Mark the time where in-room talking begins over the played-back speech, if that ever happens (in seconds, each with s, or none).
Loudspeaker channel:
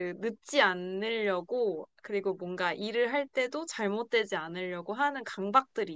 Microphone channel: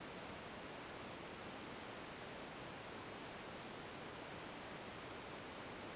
none